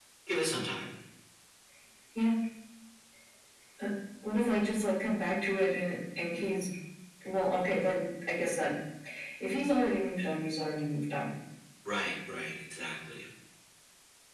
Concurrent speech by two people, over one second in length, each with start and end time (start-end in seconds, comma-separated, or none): none